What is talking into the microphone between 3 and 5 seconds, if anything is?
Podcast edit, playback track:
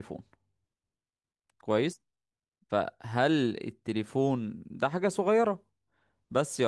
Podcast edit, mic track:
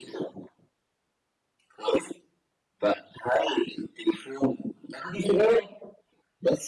echo only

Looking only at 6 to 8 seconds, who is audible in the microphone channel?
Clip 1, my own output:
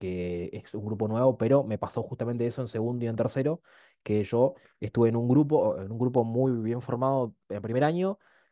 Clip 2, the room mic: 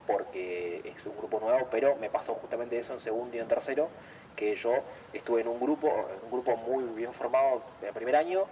echo only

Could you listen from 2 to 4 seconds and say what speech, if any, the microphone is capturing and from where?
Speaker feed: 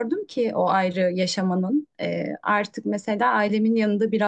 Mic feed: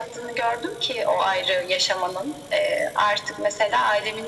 echo only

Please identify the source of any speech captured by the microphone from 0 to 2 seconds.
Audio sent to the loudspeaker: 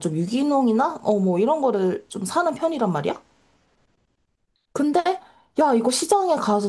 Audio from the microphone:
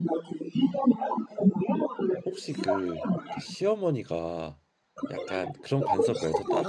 echo only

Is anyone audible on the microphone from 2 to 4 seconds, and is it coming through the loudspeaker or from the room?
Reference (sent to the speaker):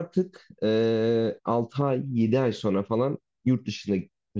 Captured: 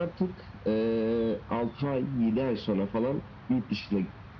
echo only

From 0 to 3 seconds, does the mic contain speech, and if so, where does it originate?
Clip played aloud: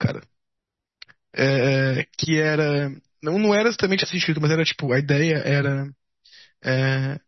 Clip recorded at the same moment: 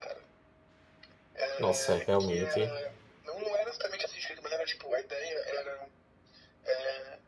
both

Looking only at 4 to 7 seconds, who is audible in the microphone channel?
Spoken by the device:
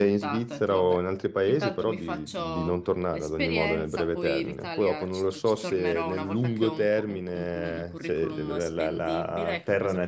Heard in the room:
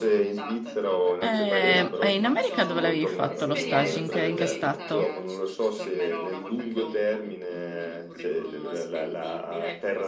both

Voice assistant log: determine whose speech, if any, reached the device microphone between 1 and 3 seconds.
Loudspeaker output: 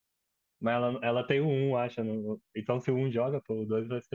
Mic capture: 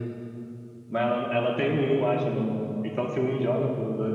echo only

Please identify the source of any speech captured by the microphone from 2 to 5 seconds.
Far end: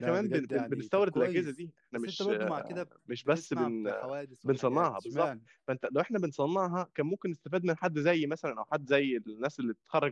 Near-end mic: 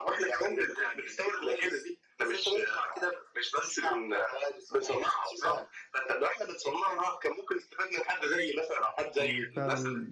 echo only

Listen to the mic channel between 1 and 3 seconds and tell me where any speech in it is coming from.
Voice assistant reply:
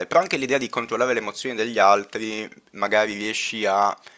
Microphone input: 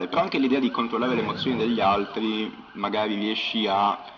both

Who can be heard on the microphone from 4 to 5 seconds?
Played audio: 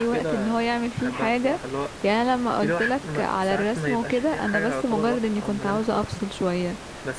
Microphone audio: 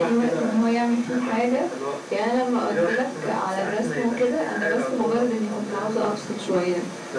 echo only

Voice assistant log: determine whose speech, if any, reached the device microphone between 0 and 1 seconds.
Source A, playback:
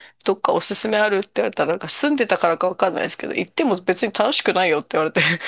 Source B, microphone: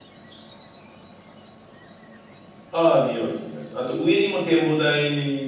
neither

